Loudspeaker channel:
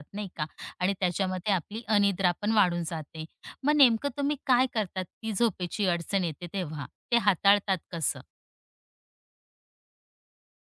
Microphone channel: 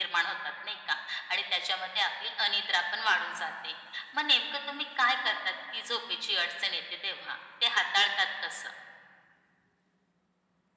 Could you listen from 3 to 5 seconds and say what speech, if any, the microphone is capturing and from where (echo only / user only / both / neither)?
echo only